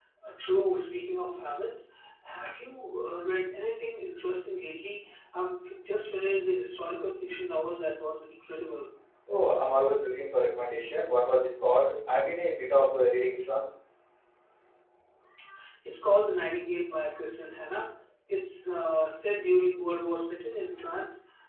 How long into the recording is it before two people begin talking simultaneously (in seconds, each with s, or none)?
none